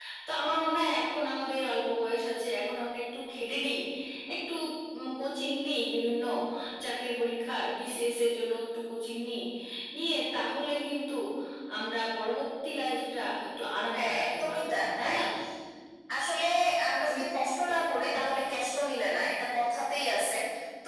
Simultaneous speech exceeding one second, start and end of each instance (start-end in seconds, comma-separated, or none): 13.9-15.2